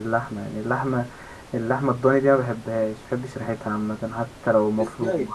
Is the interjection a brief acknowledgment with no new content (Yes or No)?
No